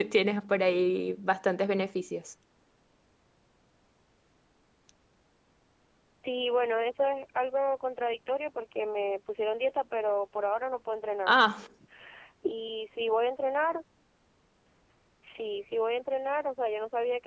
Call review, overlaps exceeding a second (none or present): none